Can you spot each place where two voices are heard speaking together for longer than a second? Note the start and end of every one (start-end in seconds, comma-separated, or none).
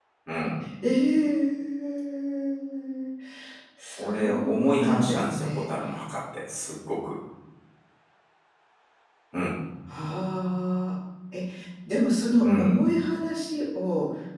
4.0-5.7